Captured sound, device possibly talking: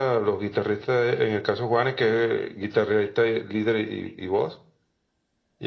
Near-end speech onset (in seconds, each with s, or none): none